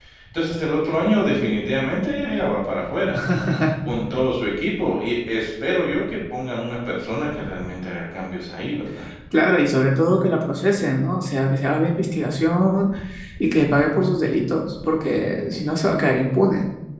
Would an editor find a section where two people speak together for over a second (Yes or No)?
No